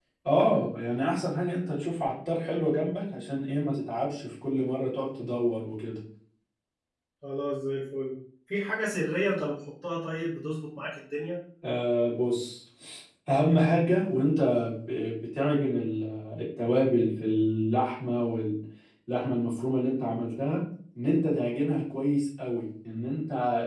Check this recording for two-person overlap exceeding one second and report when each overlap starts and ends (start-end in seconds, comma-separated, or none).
none